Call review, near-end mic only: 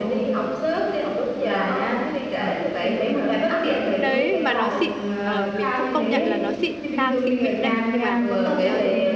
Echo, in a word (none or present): present